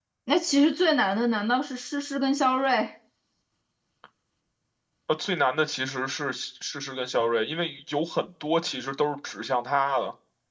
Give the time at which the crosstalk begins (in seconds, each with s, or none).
none